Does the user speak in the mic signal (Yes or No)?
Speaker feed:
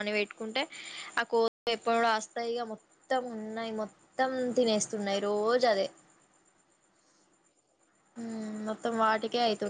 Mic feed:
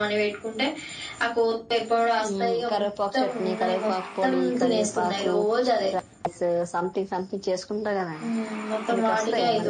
Yes